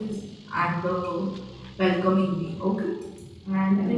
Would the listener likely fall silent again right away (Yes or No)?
Yes